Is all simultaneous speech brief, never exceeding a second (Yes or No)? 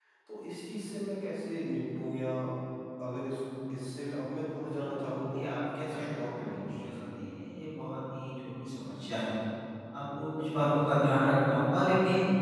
No